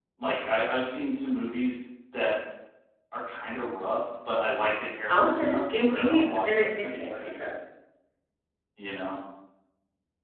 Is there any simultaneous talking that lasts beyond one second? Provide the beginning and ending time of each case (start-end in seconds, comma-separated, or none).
5.1-7.4